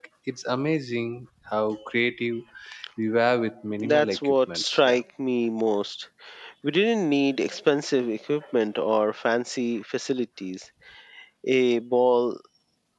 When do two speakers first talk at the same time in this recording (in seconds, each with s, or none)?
3.8 s